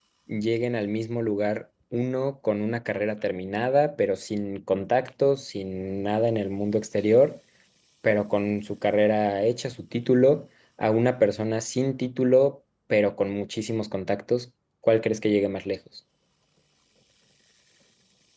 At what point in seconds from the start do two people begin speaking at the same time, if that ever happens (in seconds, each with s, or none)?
none